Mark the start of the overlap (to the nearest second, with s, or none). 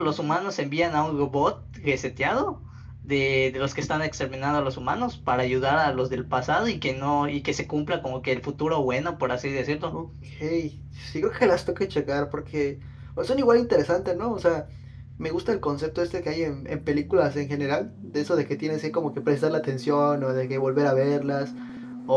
none